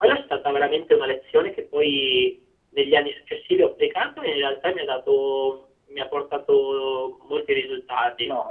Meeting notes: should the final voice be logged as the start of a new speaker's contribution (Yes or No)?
Yes